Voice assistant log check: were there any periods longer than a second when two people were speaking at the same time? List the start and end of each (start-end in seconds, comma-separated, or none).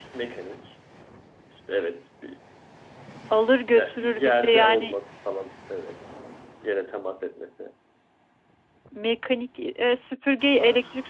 3.7-5.0